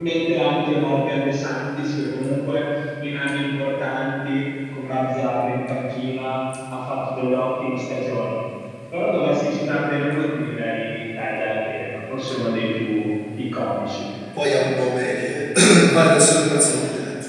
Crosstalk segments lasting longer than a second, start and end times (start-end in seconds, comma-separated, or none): none